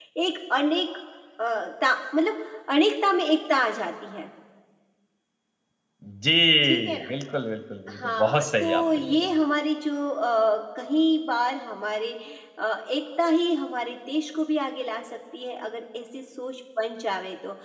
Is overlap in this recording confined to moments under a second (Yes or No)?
No